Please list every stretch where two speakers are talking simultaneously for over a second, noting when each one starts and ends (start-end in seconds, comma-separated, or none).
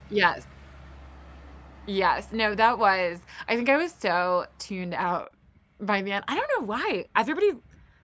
none